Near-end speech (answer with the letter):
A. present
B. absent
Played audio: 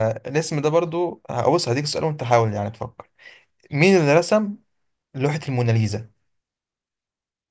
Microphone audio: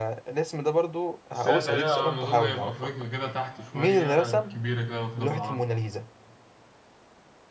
A